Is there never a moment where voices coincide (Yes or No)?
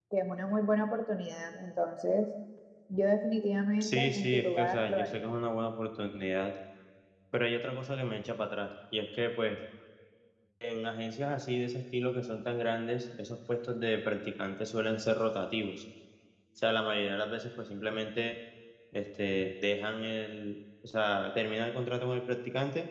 No